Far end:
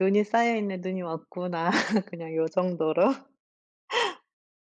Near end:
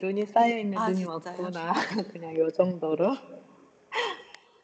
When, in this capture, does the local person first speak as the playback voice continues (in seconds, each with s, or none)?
0.7 s